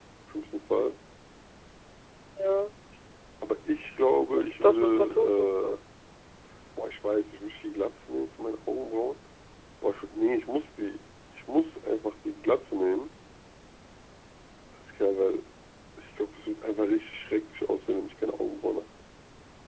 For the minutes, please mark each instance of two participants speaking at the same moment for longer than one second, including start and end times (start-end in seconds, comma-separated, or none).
4.4-5.8